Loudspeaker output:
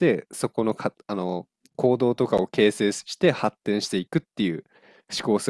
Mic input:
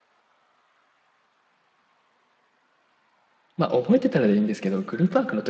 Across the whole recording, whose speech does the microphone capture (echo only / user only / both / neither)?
user only